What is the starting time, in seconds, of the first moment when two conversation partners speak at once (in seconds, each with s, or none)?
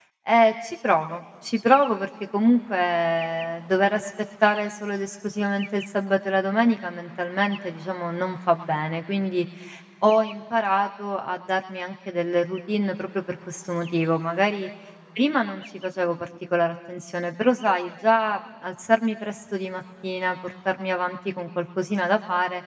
none